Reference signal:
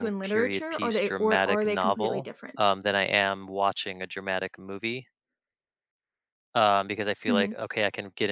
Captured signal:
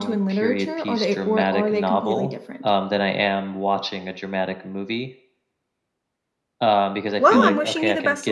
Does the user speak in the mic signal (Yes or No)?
Yes